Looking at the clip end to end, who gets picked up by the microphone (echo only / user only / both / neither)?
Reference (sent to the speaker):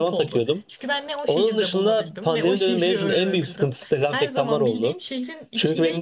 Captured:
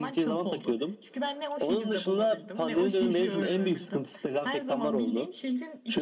echo only